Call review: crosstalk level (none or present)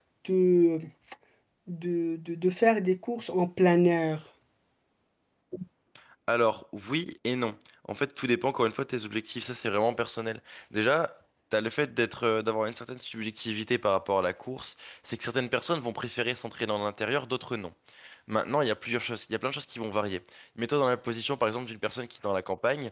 none